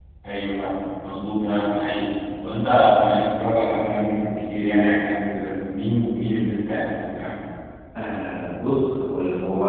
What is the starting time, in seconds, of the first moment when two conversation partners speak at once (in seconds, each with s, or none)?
none